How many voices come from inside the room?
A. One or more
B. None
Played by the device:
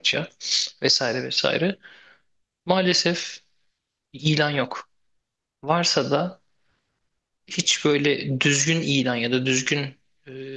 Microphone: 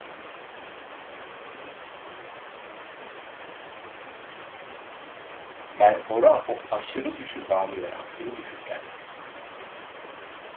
A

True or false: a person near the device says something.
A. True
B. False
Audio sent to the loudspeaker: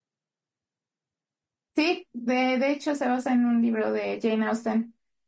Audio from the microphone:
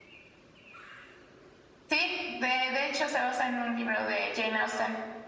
B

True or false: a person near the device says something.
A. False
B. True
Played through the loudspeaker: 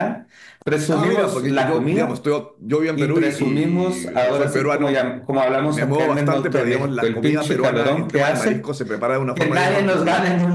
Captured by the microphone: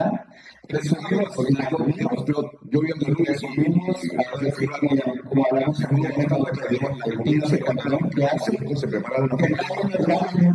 A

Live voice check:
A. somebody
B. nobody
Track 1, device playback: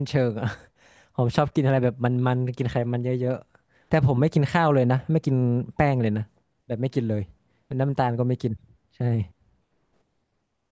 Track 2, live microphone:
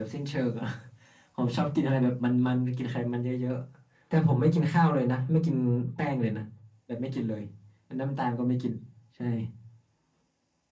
B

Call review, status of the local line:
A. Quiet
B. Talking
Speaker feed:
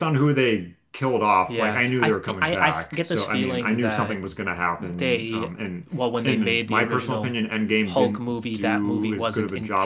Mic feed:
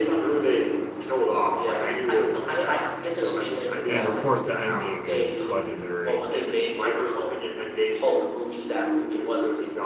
B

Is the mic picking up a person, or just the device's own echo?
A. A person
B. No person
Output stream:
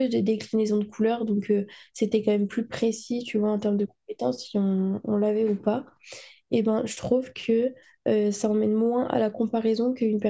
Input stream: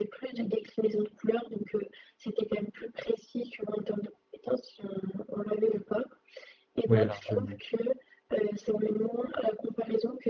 A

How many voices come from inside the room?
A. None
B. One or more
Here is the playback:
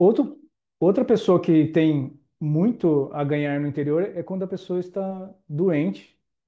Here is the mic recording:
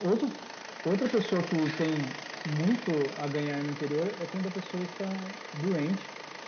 A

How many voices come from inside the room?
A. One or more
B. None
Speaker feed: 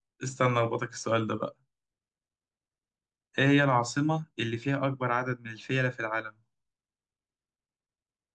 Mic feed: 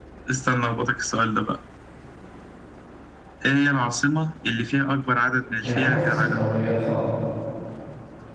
A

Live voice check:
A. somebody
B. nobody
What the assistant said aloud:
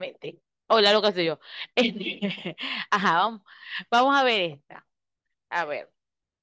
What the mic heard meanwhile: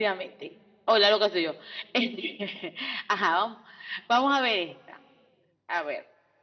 B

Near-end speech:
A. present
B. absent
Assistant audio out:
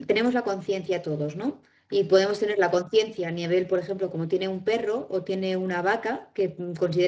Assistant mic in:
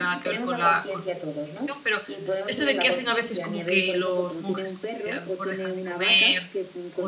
A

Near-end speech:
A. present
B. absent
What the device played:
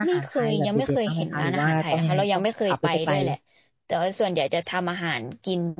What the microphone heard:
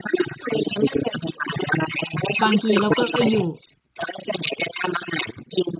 A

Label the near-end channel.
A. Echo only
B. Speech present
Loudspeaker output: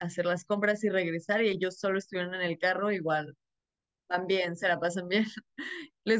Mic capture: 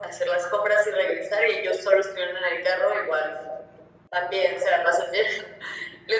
A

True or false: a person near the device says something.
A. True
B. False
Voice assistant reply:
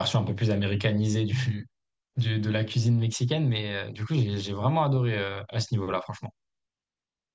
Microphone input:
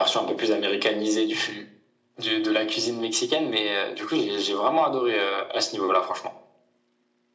B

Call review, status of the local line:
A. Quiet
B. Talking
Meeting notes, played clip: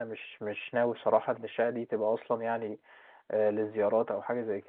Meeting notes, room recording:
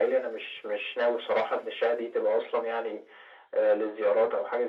A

